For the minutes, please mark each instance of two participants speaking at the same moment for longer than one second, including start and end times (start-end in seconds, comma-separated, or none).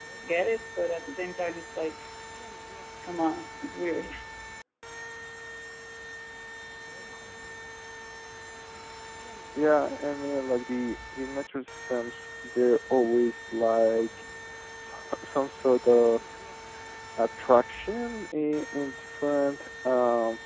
none